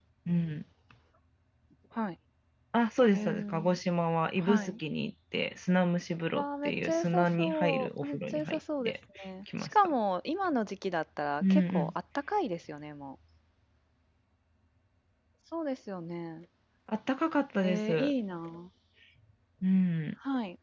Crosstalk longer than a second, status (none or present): present